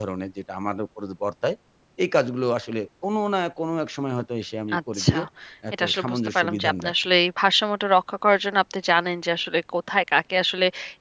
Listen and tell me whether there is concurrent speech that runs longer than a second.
Yes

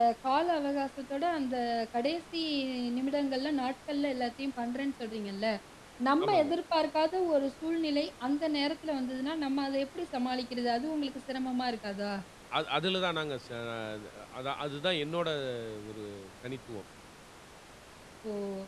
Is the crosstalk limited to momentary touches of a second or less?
Yes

